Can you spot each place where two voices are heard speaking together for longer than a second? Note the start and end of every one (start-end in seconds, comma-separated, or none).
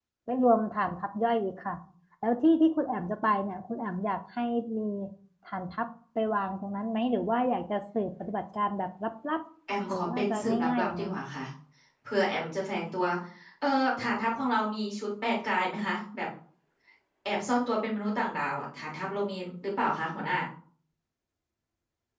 9.8-11.1